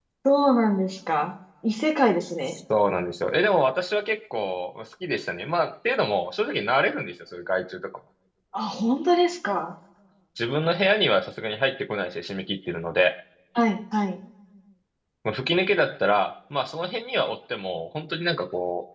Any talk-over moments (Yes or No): No